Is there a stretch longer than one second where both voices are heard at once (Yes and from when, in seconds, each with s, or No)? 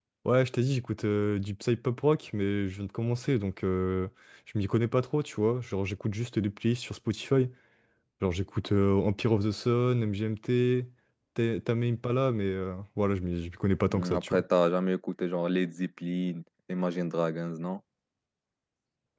No